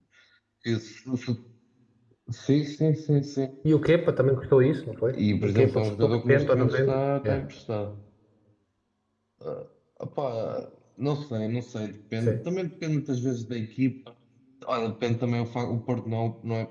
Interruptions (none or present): present